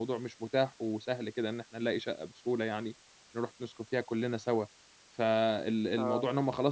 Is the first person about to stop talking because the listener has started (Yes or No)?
No